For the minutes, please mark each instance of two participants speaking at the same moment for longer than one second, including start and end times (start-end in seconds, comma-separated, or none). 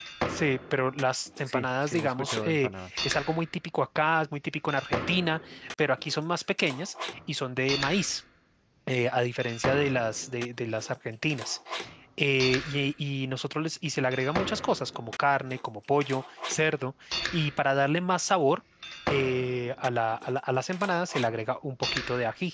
1.5-2.9